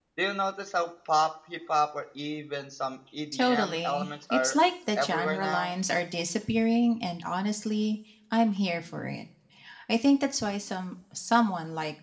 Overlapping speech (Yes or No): Yes